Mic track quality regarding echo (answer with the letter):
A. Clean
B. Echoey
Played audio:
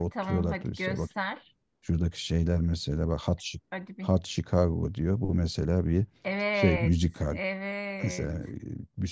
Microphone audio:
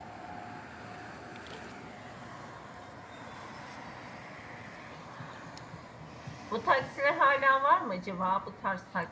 A